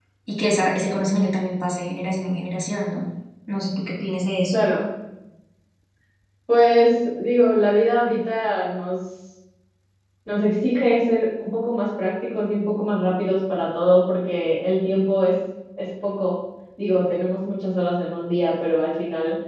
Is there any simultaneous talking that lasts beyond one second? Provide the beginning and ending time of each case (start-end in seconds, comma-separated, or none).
none